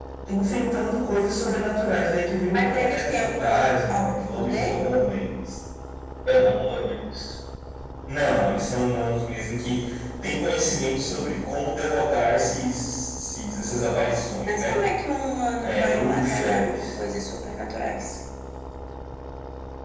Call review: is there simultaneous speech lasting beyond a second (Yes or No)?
Yes